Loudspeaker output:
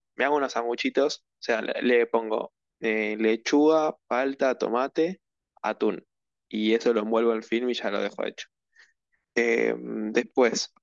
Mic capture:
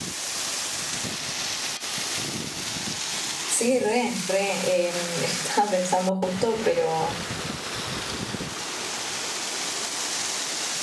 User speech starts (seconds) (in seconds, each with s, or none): 3.5 s